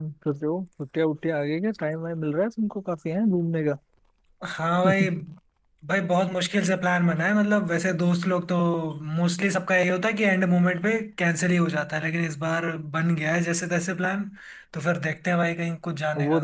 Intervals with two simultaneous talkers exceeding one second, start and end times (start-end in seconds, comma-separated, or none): none